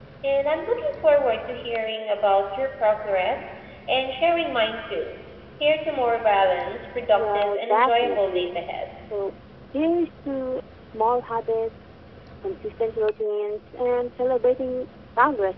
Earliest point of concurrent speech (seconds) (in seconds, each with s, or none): 7.1 s